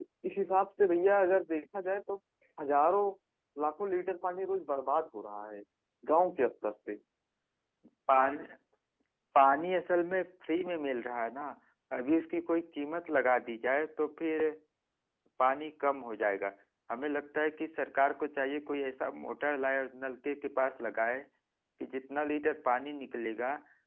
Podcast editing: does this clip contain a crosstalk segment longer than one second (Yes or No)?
No